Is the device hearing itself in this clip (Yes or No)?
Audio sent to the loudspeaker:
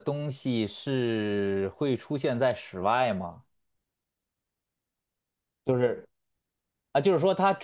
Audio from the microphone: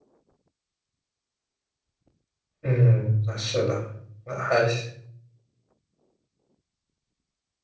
No